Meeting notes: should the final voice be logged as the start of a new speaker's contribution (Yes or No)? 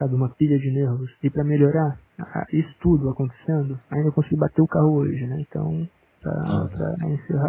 No